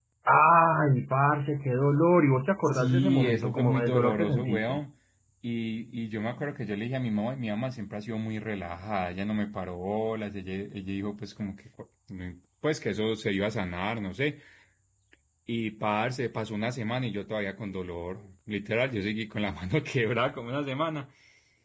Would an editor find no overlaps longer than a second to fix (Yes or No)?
No